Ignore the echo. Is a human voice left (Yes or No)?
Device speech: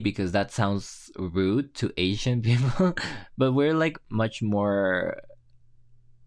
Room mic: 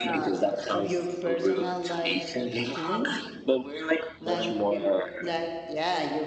Yes